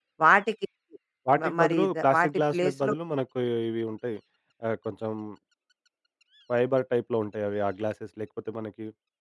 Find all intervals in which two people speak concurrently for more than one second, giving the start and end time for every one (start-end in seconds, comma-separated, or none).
1.4-2.9